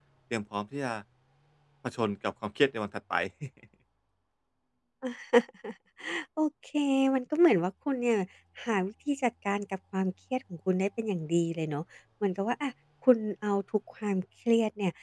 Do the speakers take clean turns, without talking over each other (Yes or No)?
Yes